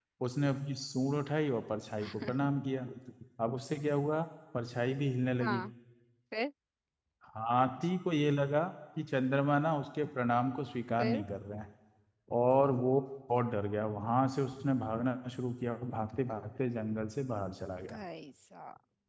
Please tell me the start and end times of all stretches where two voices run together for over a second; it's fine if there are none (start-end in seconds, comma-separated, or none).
none